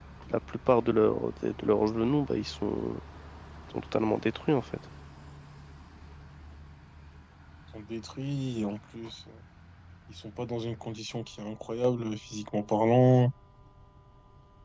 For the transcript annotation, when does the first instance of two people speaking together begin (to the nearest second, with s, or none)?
none